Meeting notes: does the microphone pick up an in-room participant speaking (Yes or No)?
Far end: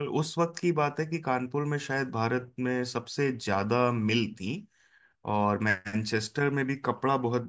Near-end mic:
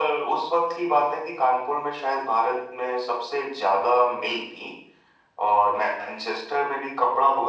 No